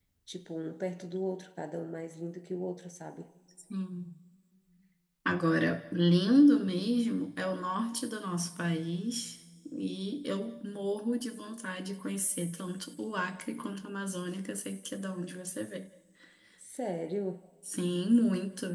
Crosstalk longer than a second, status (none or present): none